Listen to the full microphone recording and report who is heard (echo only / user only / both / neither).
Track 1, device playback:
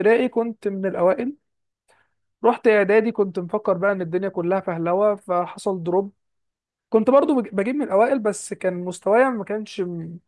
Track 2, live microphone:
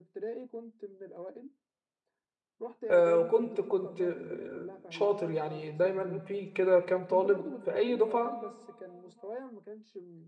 both